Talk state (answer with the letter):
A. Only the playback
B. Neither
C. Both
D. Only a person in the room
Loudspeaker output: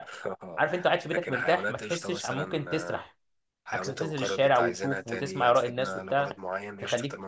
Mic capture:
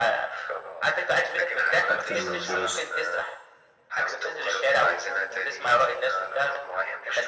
C